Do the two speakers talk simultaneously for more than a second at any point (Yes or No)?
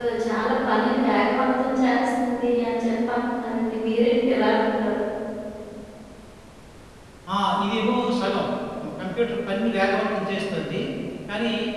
No